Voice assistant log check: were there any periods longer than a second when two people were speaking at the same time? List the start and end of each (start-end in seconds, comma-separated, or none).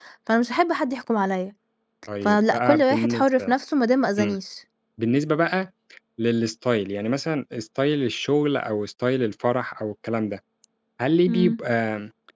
2.2-3.5